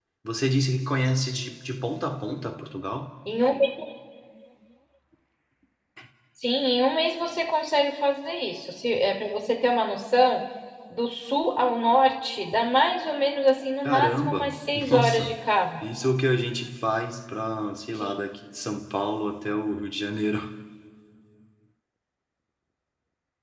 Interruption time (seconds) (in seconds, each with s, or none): 13.8 s